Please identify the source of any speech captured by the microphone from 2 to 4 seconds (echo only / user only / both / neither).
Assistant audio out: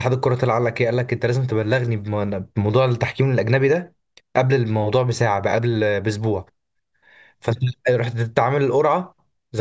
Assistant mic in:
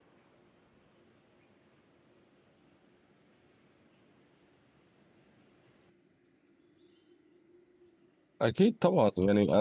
neither